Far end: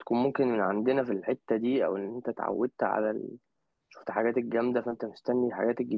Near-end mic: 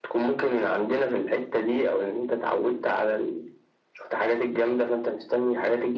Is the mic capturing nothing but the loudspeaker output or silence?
Yes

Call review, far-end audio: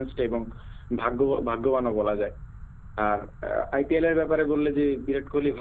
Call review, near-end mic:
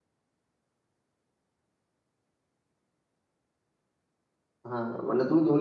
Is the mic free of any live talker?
No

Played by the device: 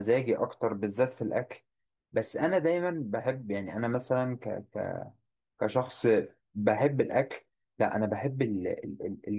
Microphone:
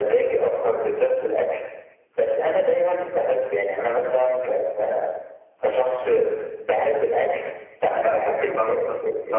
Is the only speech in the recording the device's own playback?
No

